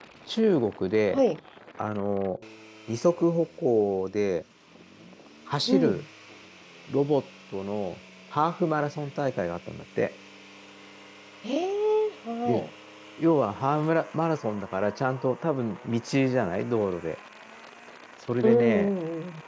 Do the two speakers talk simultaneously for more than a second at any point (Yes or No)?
No